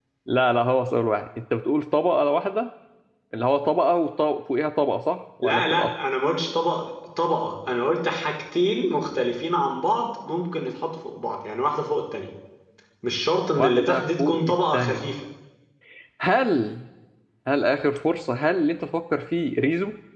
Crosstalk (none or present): present